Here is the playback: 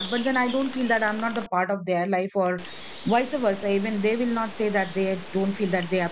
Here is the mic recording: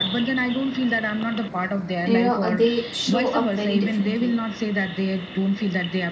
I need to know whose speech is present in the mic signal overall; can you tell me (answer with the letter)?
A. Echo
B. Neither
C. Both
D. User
C